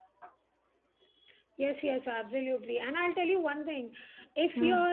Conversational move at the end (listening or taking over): listening